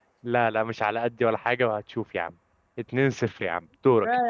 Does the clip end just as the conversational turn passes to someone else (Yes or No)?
Yes